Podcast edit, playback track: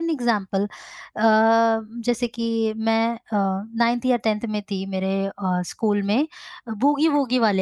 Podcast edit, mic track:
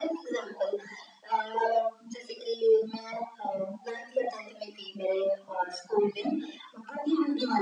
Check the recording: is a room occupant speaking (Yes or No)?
No